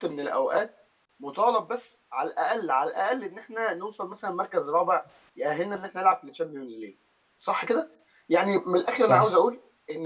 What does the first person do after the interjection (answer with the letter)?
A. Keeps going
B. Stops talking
A